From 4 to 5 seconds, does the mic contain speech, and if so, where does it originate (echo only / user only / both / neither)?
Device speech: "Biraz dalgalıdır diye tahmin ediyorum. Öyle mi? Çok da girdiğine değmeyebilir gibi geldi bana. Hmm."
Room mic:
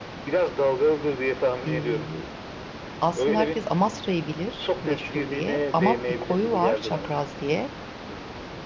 both